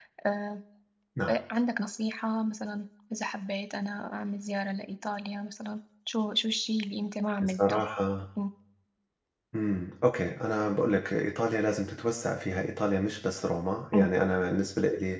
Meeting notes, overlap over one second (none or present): none